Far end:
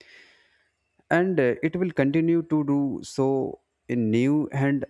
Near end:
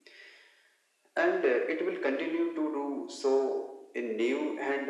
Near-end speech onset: none

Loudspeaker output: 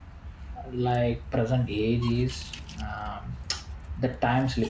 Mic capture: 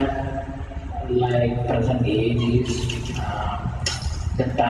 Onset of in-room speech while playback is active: none

